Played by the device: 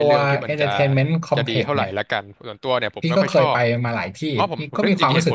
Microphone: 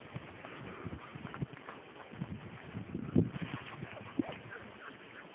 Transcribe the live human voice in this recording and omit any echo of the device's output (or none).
none